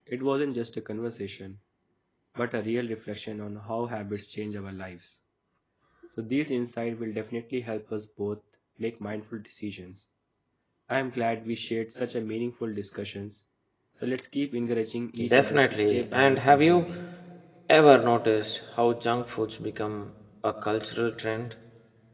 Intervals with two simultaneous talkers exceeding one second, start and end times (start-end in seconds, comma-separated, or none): 15.3-16.9